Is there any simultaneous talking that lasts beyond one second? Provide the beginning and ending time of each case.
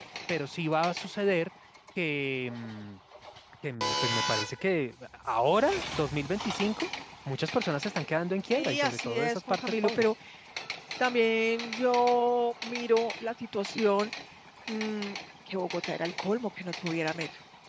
8.5-10.0

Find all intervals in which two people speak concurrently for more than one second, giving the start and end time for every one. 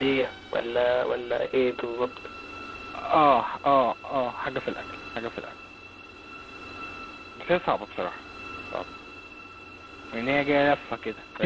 none

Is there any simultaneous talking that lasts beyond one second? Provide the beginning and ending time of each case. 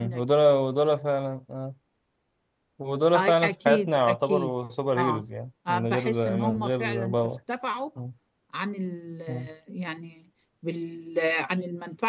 3.1-4.5, 5.7-7.3

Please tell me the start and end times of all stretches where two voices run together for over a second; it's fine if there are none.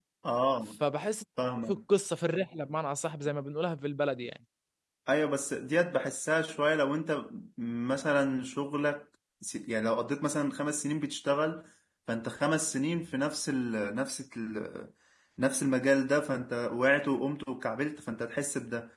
none

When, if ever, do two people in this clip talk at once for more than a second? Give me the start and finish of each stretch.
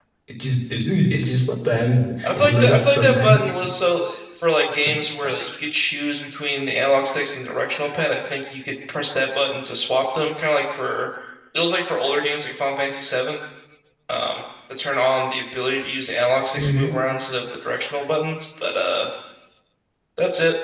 2.2-3.5

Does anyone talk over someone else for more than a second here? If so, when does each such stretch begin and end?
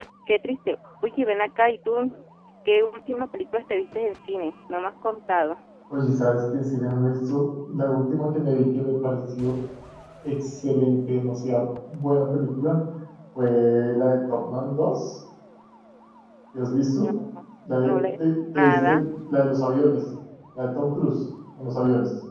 17.8-19.0

